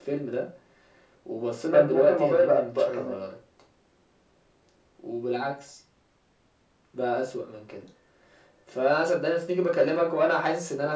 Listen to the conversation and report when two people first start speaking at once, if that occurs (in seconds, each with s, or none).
1.7 s